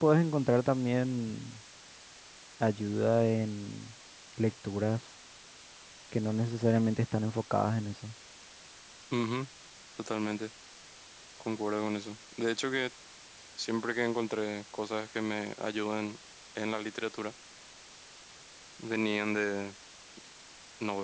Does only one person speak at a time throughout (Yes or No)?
Yes